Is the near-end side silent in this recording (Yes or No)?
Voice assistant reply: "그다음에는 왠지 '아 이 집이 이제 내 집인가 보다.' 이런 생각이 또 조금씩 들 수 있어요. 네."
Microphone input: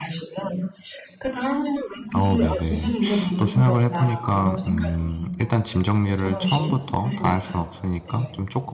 No